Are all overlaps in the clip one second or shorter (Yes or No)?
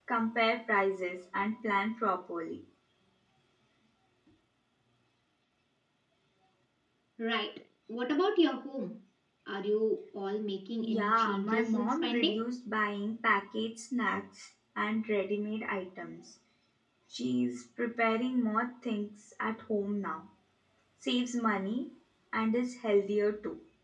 No